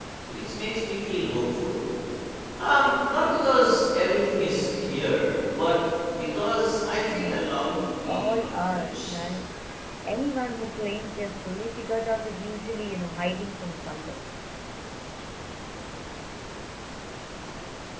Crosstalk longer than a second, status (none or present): present